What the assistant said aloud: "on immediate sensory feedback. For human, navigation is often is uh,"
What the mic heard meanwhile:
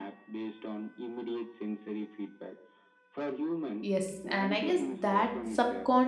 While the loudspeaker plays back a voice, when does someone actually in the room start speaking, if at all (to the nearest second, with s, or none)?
4 s